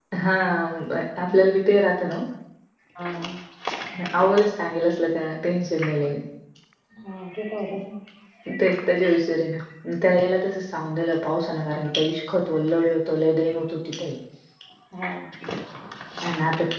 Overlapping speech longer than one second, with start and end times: none

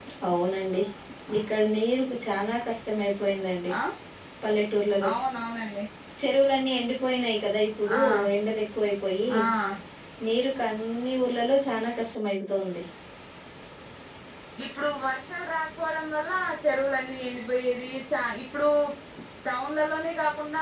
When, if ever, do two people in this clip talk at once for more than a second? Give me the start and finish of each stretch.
none

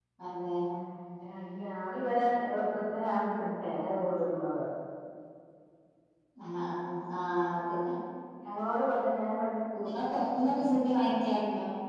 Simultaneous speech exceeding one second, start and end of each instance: none

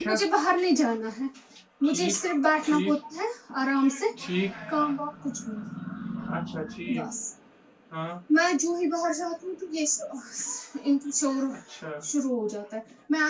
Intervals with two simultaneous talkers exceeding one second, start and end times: none

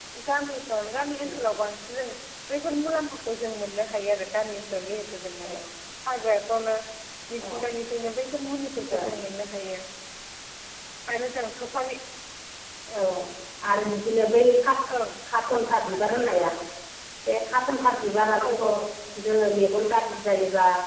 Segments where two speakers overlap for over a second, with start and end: none

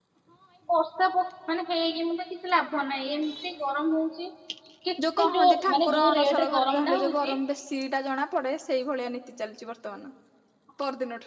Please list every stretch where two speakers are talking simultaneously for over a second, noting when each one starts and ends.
5.2-7.4

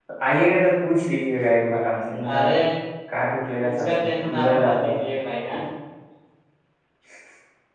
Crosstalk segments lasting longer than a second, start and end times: 3.6-5.0

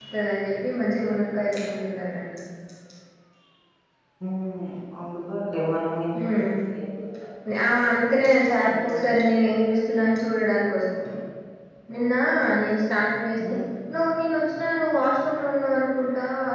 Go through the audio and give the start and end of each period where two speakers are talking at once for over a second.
none

